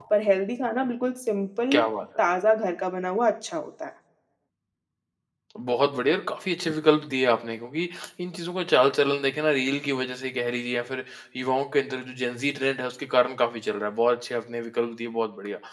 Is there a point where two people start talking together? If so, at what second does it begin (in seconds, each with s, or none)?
none